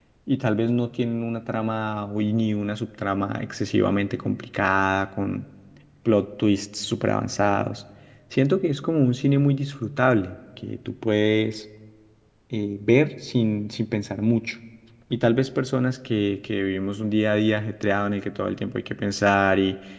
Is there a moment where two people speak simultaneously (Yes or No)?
No